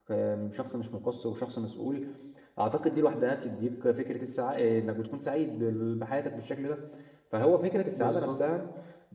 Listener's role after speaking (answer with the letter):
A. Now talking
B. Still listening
B